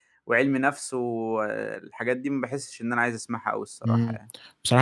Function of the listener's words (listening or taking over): taking over